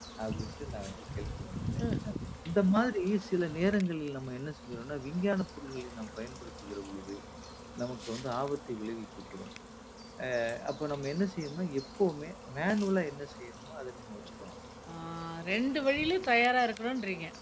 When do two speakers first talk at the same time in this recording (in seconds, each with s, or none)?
none